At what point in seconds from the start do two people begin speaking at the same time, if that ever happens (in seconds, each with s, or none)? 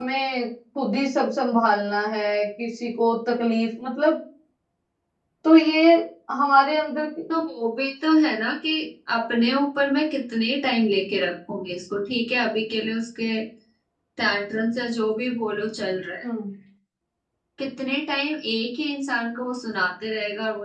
none